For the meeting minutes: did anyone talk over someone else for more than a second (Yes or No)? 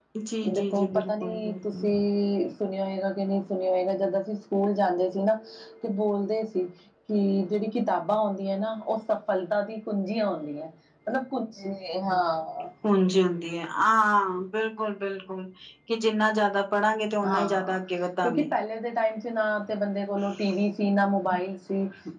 Yes